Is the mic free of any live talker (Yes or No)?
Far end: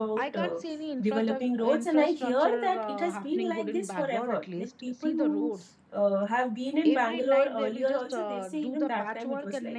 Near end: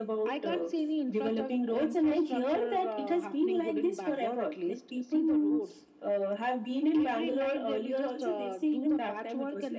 Yes